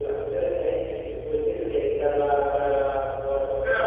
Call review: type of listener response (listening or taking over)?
taking over